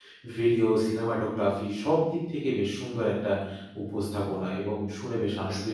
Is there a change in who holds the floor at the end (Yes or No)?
Yes